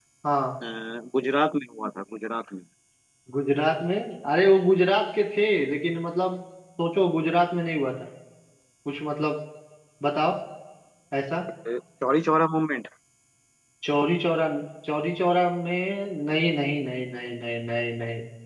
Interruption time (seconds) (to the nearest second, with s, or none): none